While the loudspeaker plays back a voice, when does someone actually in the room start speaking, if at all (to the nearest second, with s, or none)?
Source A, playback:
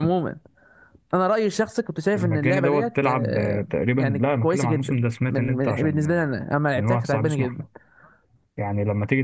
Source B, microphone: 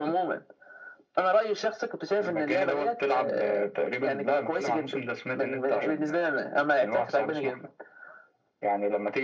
none